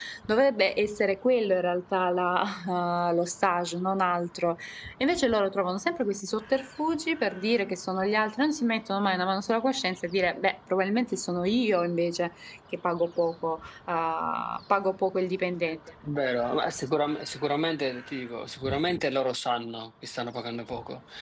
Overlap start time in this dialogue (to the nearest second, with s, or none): none